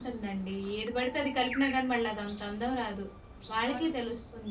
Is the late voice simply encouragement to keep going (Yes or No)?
Yes